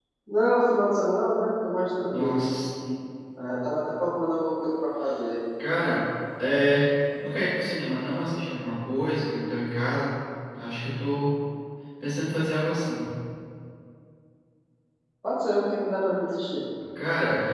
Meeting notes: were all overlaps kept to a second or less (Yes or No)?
Yes